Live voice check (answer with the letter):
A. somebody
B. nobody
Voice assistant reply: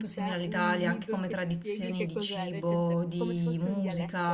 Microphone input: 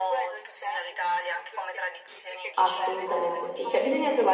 A